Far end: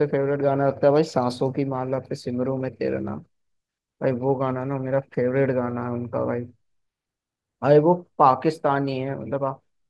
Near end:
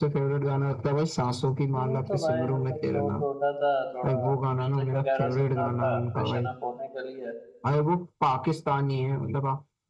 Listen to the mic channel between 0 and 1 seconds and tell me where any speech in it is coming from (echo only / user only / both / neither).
echo only